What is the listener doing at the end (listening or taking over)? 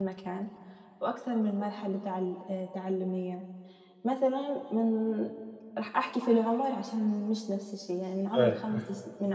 listening